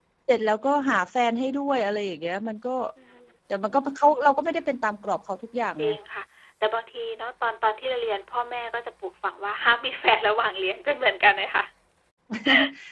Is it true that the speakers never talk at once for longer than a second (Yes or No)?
Yes